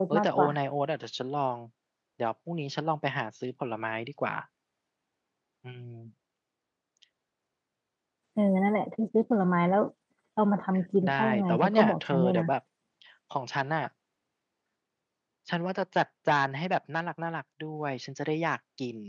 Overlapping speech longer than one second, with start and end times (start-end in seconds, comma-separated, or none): 11.0-12.4